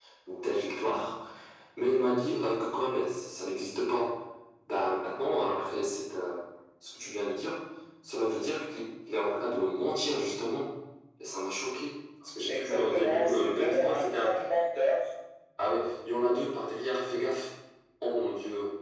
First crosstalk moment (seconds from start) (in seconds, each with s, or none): 12.5 s